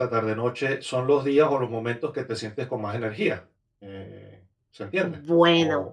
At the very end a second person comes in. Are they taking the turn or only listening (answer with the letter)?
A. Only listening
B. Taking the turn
B